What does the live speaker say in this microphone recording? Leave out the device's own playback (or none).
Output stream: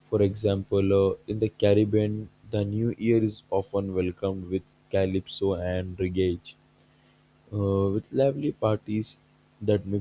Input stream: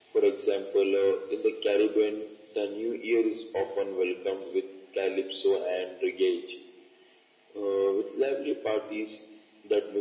none